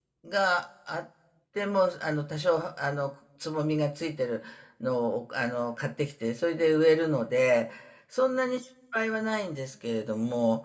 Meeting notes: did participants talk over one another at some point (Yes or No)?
No